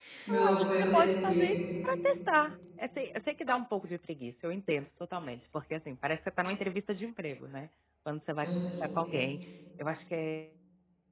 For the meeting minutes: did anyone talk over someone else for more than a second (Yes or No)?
Yes